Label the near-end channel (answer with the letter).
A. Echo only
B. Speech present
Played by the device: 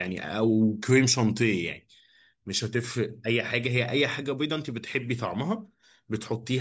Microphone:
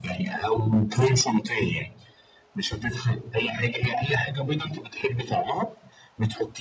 A